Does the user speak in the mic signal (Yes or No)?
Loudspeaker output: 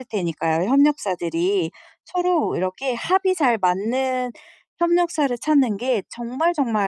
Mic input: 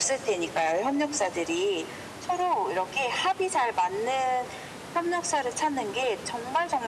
No